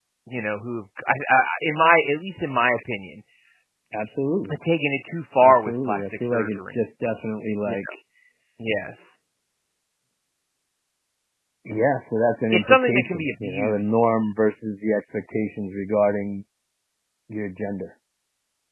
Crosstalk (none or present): present